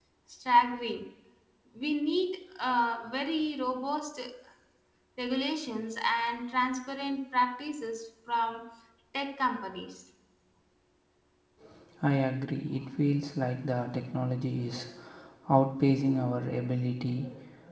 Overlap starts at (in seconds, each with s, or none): none